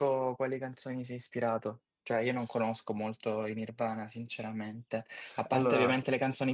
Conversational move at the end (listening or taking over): listening